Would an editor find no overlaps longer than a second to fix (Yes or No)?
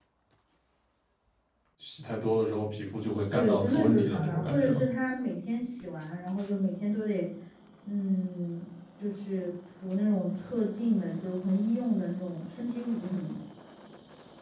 No